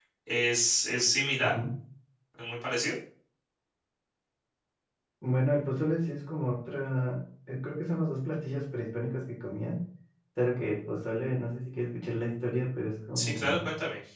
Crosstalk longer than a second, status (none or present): none